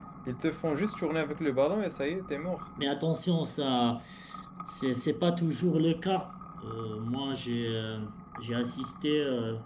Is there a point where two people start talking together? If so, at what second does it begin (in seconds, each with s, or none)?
none